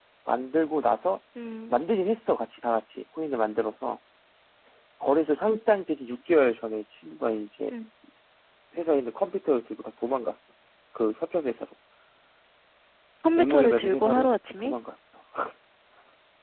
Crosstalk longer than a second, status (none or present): present